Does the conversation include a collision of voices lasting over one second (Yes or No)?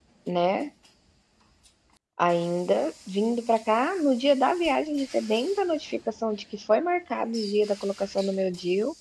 No